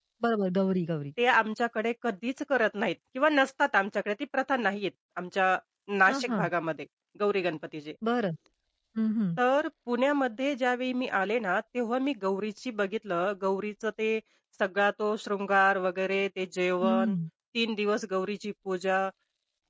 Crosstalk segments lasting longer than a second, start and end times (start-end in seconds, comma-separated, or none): none